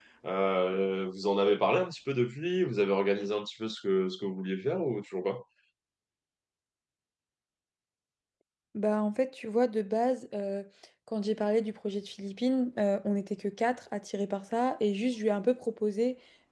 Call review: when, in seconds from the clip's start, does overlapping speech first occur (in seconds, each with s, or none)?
none